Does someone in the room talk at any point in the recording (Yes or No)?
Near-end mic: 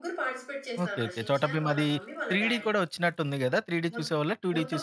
Yes